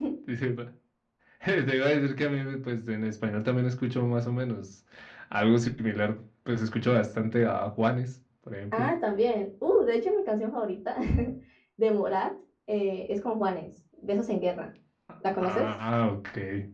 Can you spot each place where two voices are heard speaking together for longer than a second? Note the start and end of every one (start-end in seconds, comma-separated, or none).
none